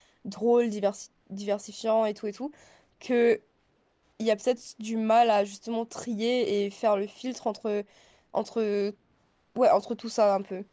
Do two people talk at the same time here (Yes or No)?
No